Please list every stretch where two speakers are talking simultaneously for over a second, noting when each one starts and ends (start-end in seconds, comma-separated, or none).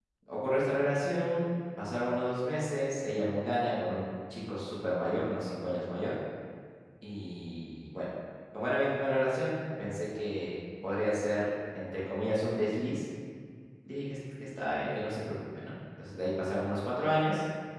none